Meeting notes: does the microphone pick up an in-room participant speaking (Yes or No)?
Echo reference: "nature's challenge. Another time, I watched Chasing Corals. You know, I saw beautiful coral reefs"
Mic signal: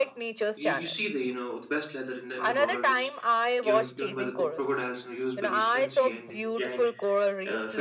Yes